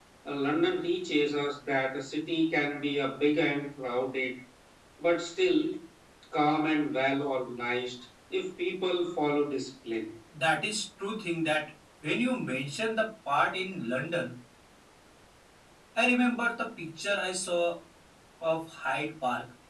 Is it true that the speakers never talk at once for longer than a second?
Yes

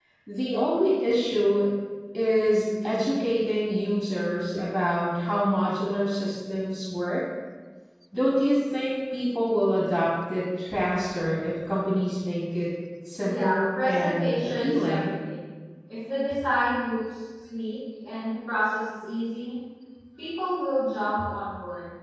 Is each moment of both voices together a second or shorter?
No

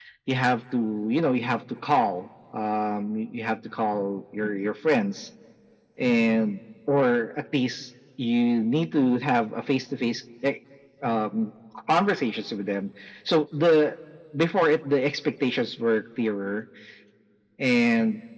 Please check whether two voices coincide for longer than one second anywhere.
No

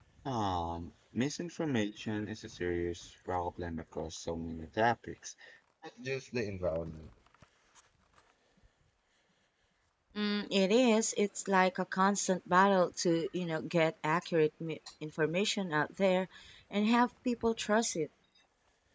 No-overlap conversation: Yes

